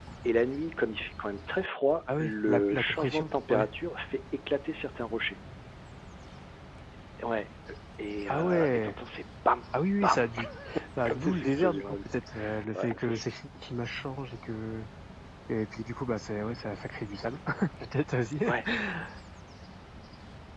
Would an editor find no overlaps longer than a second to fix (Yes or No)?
No